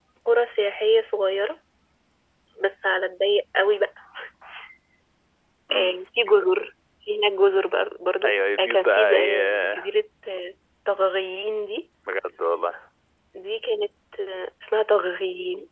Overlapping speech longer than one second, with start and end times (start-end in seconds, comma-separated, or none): 8.2-9.9